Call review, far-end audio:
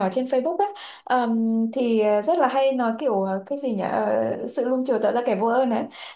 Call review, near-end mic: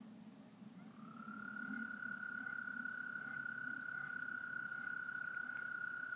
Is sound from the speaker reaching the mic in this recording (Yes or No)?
No